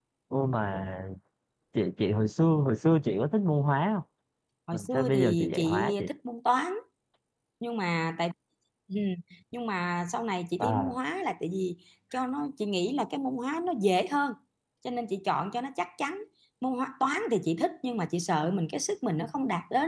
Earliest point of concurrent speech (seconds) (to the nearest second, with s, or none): 5 s